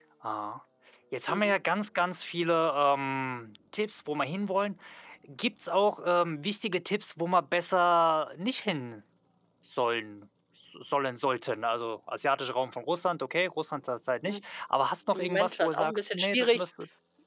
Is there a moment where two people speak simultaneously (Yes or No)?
Yes